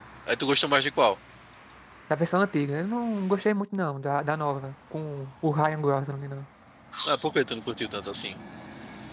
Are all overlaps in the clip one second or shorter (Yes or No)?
Yes